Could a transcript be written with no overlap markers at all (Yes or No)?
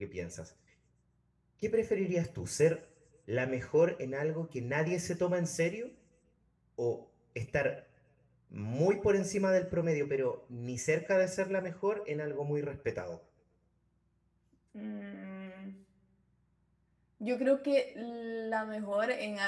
Yes